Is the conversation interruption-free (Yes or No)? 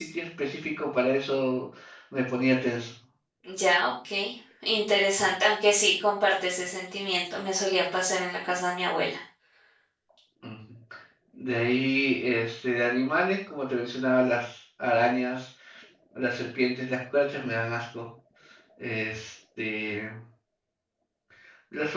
Yes